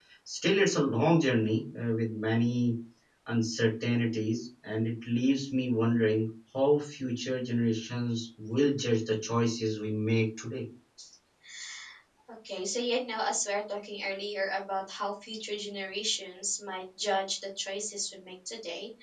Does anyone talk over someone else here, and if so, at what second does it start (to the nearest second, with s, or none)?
none